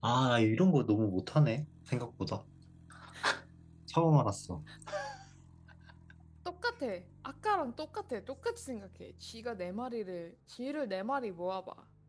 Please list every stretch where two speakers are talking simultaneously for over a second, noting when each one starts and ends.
none

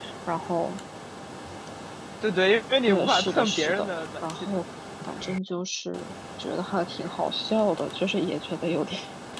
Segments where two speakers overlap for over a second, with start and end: 2.8-4.6

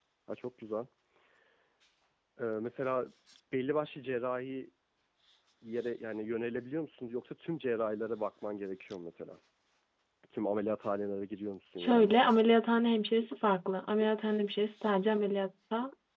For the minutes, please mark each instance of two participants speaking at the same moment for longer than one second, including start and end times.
none

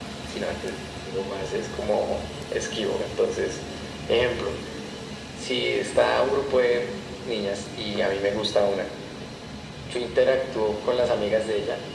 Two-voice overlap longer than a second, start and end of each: none

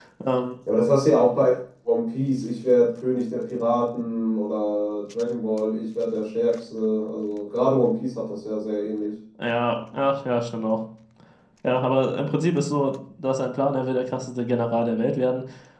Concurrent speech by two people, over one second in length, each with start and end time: none

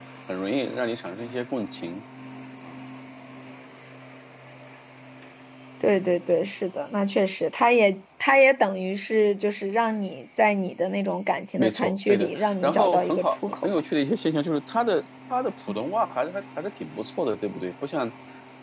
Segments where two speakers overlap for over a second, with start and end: 11.6-13.7

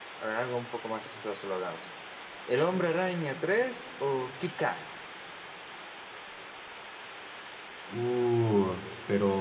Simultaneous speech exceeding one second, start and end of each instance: none

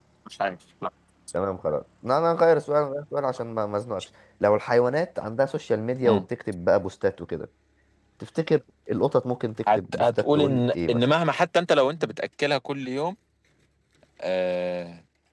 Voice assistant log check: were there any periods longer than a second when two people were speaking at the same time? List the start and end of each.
9.7-11.0

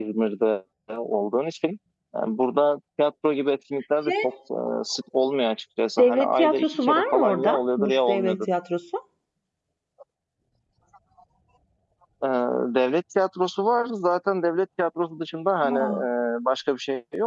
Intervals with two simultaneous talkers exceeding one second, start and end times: 6.0-8.5

